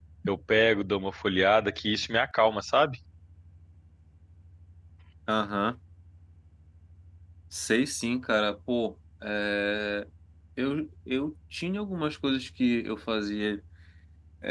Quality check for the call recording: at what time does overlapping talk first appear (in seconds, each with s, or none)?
none